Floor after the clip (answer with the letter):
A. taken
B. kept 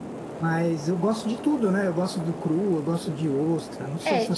A